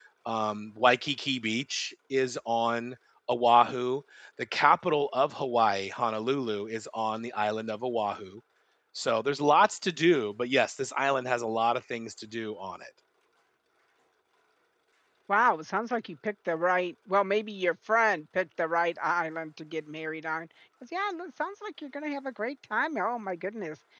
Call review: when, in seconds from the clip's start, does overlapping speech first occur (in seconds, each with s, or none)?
none